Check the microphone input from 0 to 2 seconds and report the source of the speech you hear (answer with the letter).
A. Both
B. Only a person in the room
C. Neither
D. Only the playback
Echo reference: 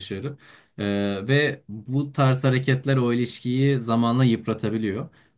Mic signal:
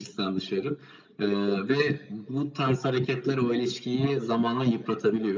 D